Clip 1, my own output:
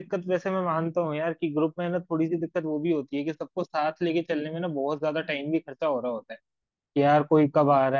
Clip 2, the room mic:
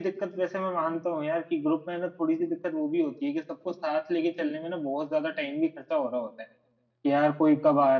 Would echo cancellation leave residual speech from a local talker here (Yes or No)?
No